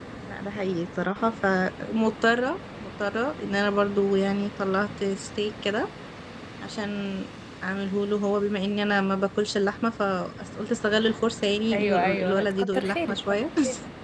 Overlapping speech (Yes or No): Yes